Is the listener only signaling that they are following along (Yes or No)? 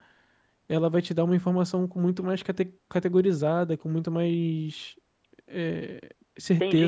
No